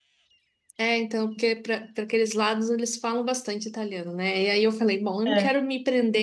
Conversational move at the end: listening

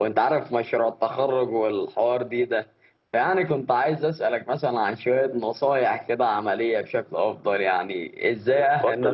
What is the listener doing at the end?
taking over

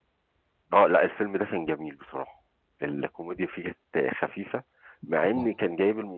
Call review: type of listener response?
listening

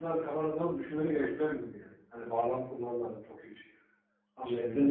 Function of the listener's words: taking over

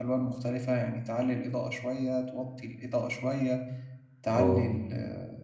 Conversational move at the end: listening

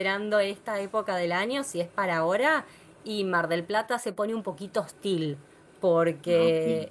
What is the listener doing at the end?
listening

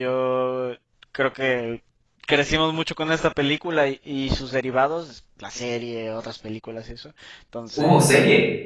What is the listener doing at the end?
listening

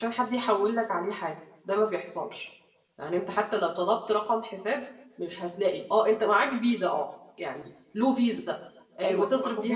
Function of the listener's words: taking over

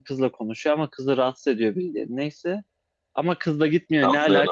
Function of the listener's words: listening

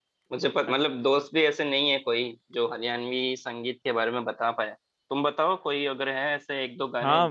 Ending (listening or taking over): taking over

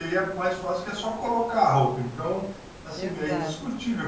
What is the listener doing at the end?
listening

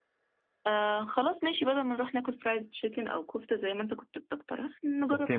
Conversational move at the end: taking over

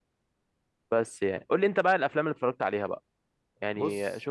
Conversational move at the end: listening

